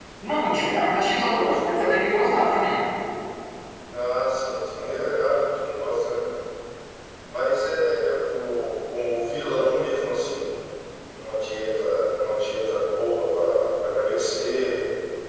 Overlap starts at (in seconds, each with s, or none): 0.5 s